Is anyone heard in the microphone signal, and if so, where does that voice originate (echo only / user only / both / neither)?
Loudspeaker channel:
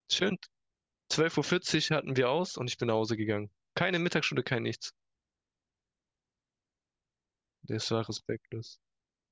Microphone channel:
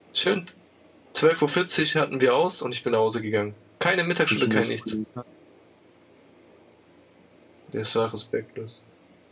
both